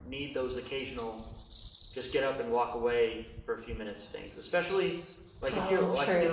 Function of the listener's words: listening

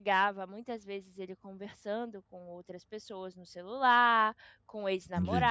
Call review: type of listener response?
listening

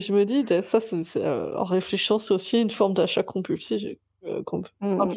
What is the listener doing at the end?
taking over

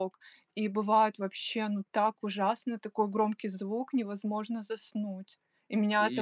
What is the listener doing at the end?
listening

